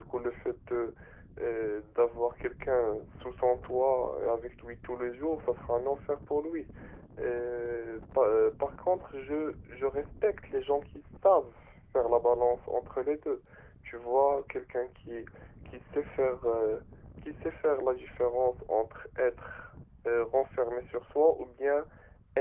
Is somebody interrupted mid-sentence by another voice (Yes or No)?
No